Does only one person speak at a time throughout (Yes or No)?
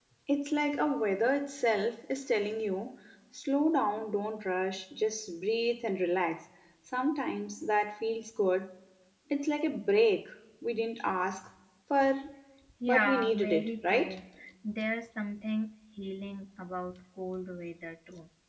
No